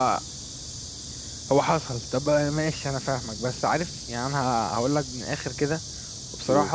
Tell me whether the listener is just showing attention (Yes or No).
Yes